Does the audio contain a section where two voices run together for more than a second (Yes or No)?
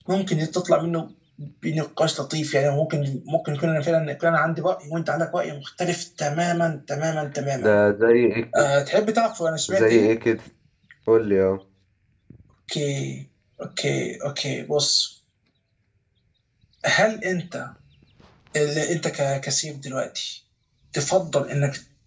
No